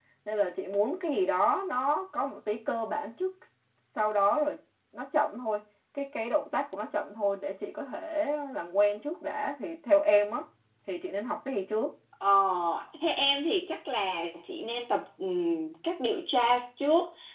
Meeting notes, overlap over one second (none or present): none